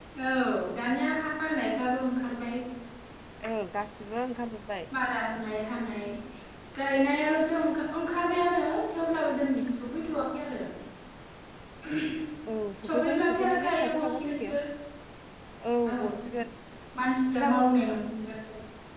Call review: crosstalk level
present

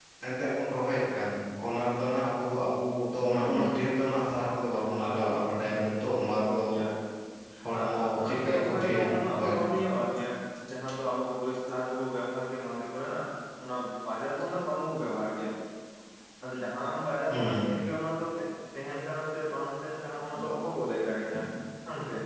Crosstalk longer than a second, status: present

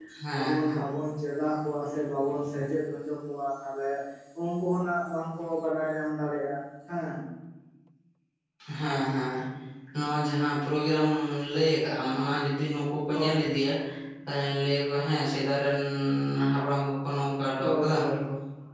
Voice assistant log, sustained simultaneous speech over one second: none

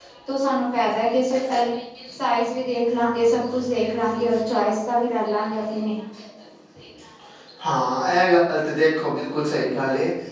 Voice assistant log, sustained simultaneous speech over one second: none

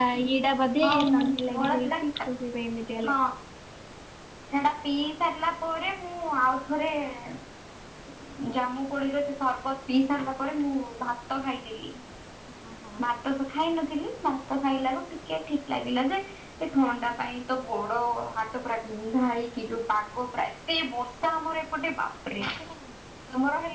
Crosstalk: present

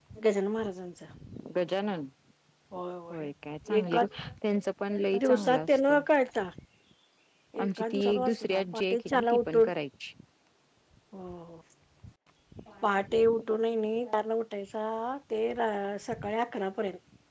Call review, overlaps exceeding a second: present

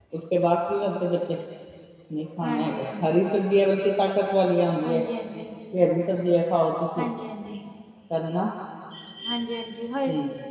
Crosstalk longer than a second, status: none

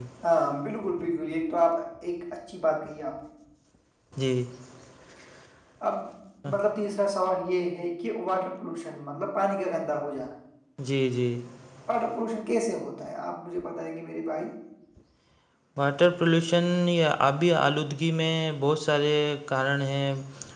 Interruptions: none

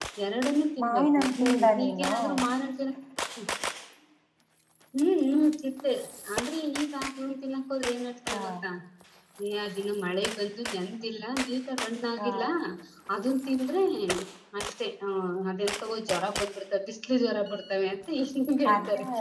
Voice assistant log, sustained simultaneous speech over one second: present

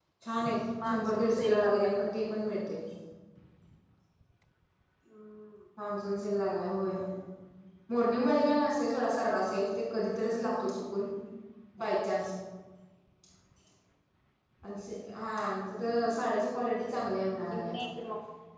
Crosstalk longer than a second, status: present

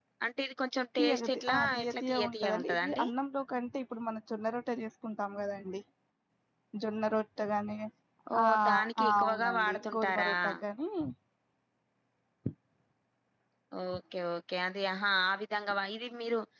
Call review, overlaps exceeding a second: present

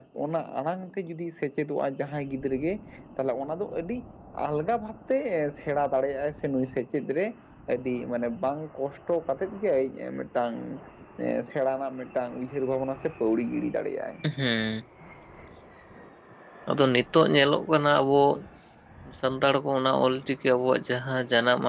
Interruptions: none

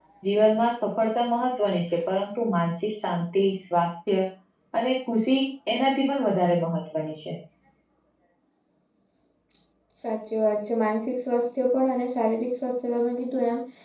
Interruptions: none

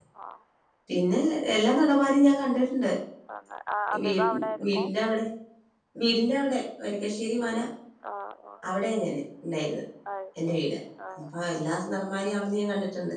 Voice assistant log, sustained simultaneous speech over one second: none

